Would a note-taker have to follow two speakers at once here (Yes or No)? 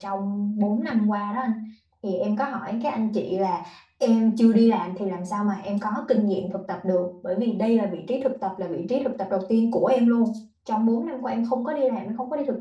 No